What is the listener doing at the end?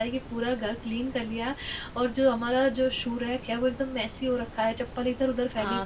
taking over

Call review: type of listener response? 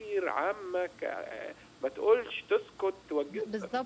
taking over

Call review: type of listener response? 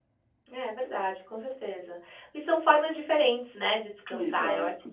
listening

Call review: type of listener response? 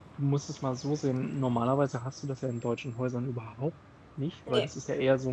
listening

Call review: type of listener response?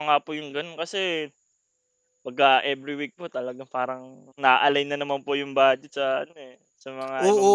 taking over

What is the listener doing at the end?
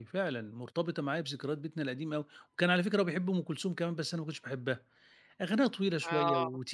listening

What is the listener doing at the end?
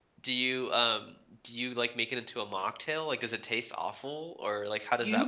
taking over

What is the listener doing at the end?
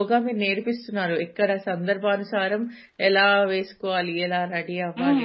taking over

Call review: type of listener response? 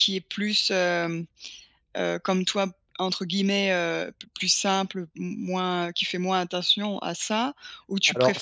taking over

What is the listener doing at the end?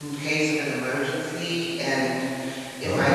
listening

